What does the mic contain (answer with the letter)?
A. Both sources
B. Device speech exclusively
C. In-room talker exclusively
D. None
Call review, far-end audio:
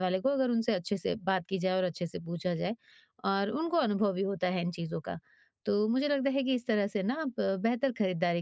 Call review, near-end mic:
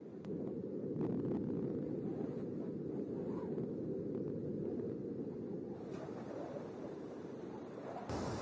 D